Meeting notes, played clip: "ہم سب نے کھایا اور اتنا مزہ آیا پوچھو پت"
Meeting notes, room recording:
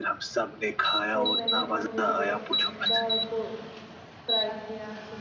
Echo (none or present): present